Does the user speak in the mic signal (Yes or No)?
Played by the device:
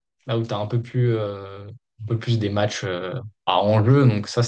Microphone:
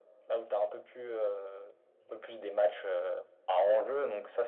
No